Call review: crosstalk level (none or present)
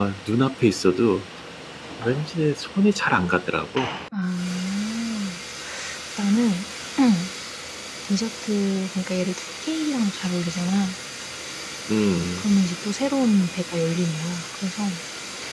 none